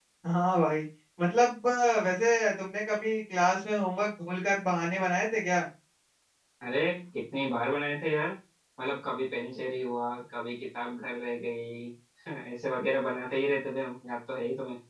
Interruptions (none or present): none